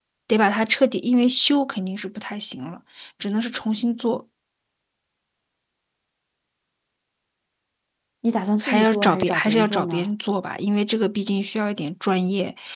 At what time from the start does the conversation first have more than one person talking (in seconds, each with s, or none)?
8.6 s